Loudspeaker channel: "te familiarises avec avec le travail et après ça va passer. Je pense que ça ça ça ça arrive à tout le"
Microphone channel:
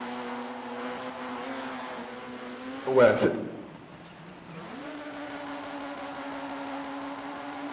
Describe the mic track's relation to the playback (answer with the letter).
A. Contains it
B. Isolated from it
B